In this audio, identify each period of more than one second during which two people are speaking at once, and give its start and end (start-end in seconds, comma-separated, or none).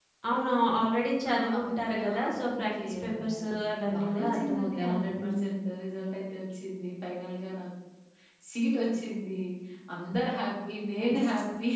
1.2-3.4, 3.9-5.7